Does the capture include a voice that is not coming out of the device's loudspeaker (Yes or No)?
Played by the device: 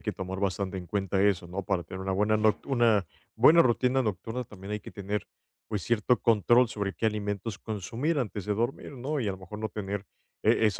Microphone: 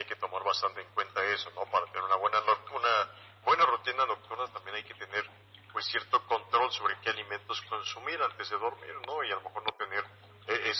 No